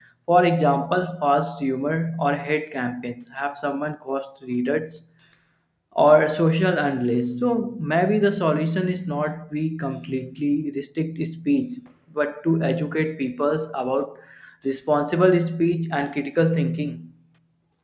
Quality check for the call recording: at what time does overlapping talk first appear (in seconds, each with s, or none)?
none